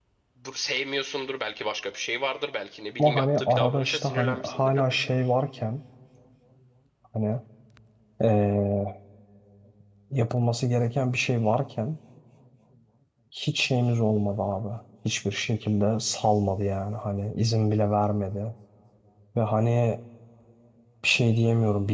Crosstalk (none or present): present